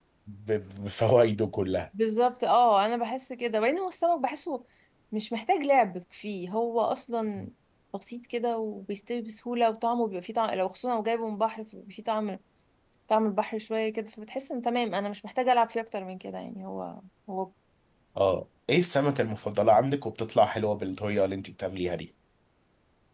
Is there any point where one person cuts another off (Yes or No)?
No